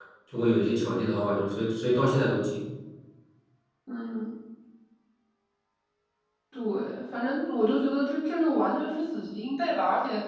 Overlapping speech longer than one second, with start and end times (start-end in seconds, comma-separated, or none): none